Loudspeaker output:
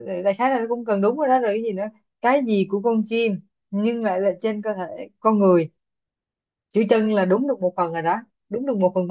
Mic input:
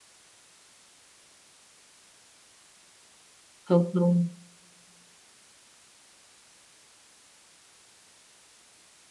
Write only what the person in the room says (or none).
không không